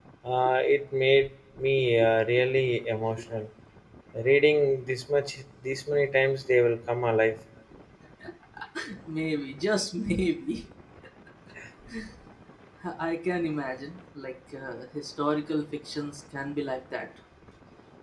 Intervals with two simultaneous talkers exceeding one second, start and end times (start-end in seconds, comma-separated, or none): none